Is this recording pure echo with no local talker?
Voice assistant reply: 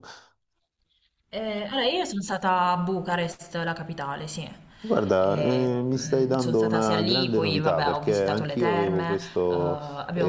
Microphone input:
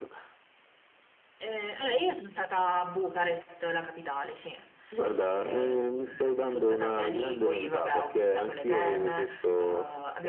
Yes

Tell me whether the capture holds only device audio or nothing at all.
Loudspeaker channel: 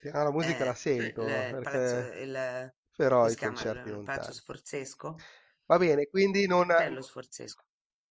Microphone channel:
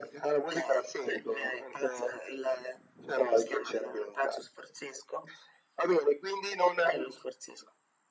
Yes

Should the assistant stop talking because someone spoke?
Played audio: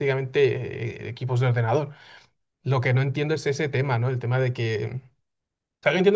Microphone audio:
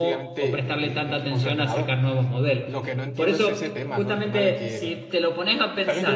Yes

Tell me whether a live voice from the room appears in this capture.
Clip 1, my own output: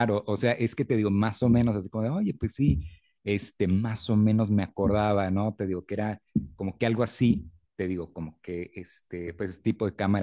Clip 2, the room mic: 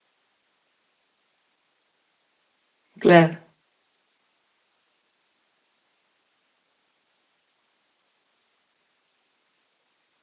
Yes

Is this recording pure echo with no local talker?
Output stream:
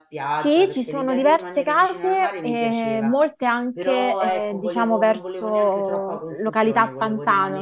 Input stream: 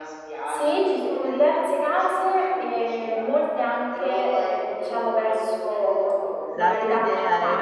No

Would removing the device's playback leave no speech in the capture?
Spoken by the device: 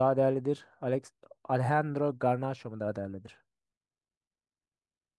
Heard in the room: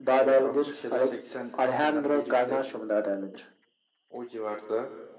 No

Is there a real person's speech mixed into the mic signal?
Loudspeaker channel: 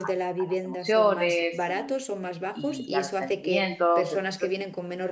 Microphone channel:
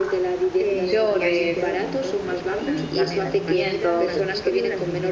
Yes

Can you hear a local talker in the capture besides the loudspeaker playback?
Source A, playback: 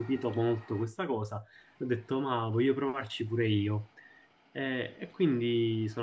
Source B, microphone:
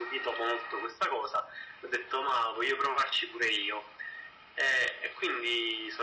No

